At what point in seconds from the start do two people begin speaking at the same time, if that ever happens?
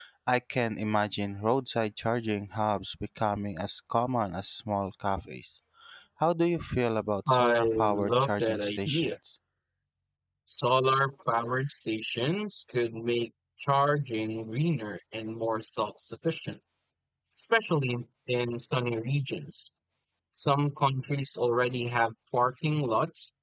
7.3 s

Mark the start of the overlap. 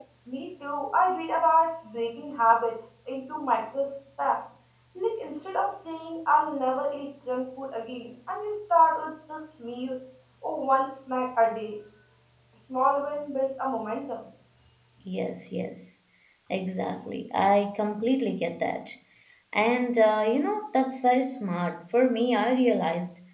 none

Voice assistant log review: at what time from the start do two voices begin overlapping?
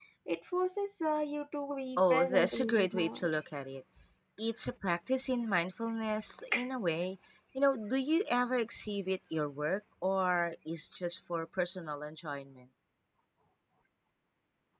2.0 s

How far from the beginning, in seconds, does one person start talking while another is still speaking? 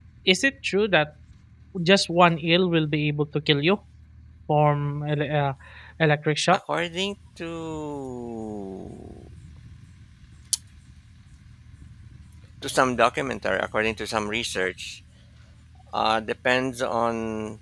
none

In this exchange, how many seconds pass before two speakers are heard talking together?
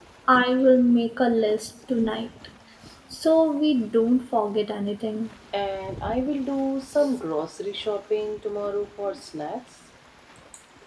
none

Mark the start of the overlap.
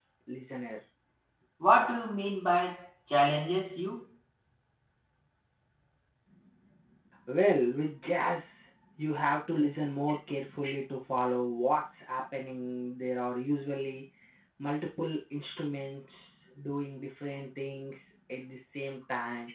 none

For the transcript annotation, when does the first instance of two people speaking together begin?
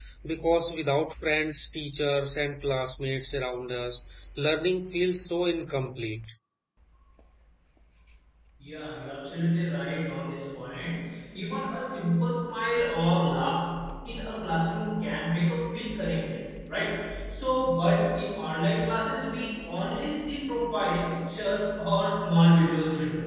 none

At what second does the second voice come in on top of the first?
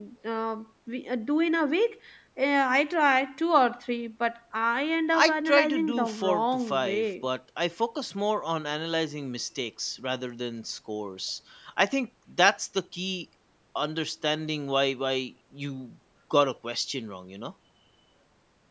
5.1 s

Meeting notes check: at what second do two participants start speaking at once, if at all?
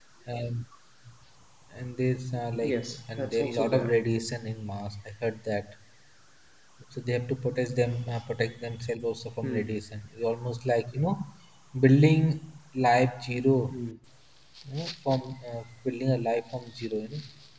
2.6 s

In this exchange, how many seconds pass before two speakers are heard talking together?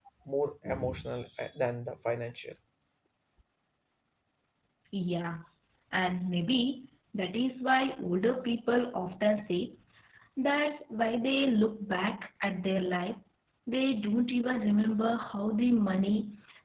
none

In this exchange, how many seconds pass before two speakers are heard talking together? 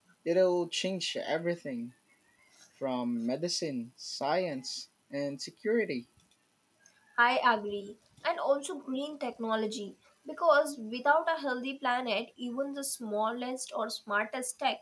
none

